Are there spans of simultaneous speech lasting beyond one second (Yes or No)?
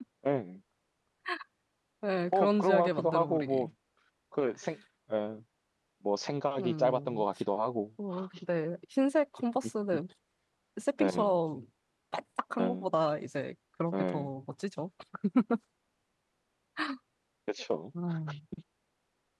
Yes